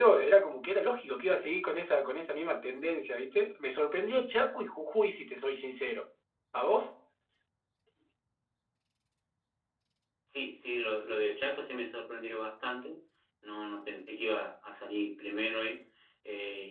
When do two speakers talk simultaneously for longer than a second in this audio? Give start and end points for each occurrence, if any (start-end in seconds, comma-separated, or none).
none